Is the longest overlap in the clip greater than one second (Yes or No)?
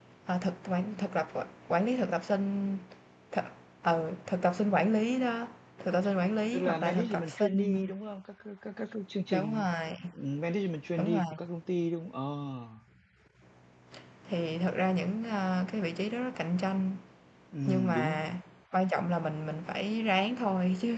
Yes